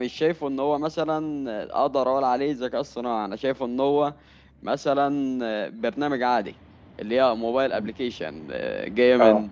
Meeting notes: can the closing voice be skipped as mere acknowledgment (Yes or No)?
Yes